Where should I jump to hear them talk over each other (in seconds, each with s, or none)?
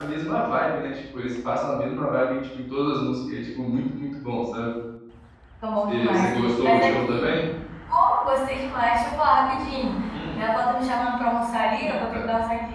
5.9 s